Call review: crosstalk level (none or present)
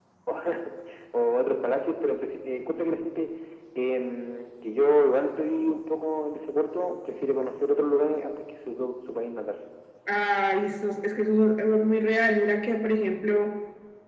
none